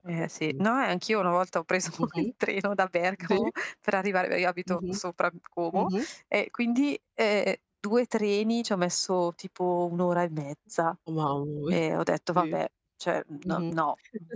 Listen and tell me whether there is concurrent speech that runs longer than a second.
No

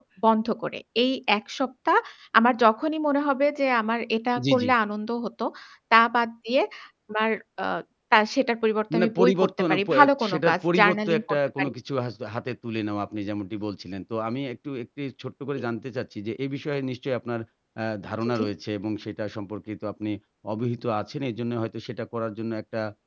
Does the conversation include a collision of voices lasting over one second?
Yes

